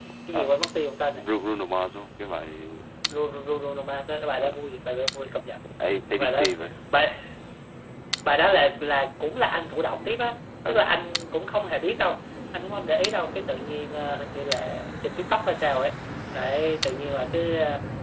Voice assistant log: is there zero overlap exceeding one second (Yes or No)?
Yes